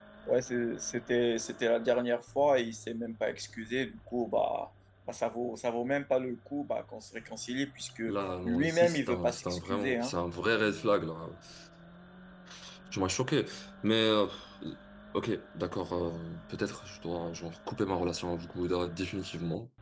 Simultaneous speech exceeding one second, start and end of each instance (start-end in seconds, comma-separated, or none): 8.4-10.1